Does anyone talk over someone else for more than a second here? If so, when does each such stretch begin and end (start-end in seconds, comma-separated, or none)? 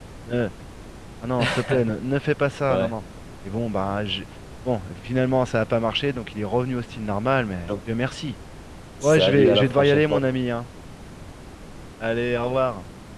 9.0-10.3